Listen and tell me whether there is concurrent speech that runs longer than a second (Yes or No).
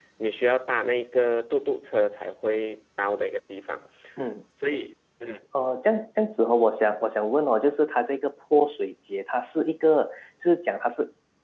No